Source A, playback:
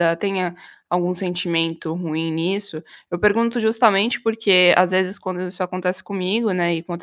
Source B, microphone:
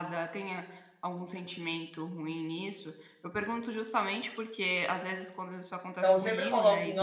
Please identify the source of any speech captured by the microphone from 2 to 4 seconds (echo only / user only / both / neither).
echo only